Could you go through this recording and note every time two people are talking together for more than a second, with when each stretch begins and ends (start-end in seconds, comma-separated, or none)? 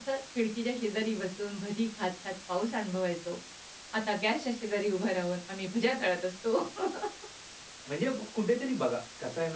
none